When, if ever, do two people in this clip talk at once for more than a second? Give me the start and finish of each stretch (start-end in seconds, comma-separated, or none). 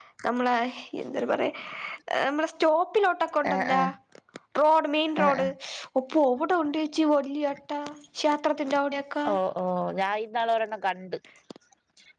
none